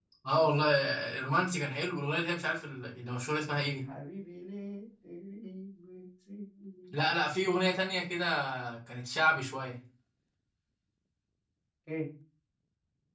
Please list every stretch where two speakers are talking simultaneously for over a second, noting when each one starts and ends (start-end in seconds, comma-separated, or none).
none